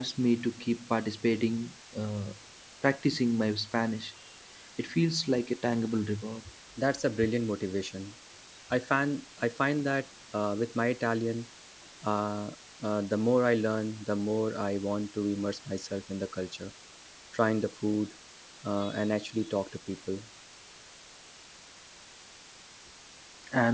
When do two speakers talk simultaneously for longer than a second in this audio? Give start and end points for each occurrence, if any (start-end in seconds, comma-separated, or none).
none